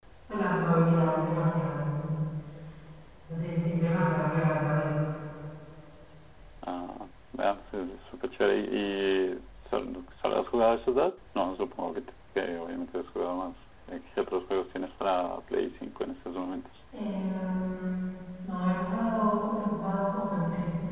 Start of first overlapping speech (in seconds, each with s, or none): none